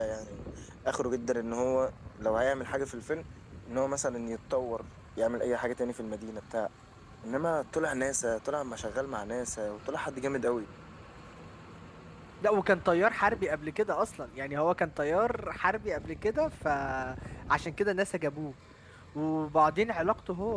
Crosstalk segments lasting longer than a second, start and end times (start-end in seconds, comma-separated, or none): none